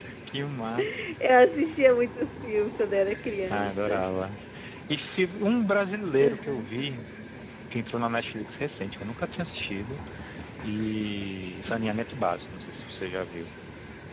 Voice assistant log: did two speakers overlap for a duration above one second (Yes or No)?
No